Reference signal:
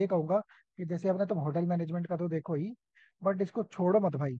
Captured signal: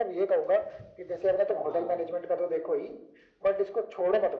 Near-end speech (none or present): present